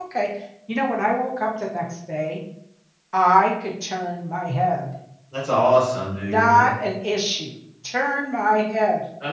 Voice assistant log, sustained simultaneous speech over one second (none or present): none